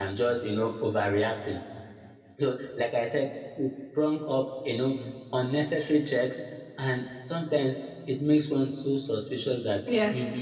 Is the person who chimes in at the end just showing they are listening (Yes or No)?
Yes